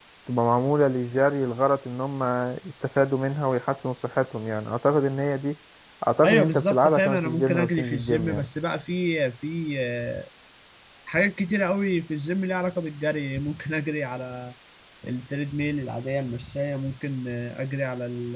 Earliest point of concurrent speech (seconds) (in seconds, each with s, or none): 6.2 s